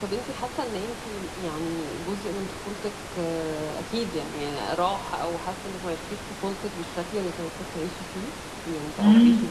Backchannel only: No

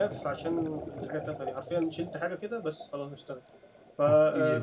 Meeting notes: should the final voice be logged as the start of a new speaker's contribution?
Yes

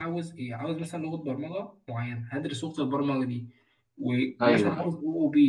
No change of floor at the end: Yes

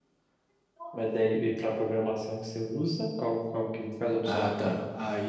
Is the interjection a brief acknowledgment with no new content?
No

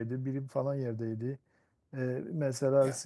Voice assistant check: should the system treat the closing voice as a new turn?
No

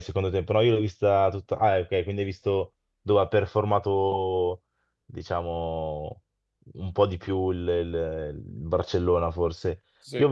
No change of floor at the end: Yes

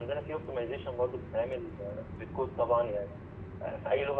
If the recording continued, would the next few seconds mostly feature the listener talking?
No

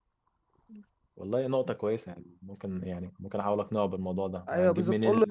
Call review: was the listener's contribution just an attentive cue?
No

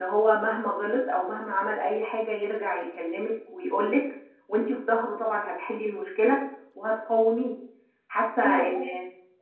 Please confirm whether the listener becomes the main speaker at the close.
No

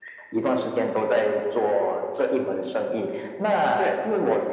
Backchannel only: Yes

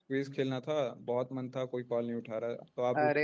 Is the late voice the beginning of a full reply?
Yes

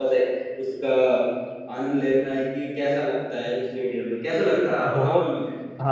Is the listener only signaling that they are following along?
No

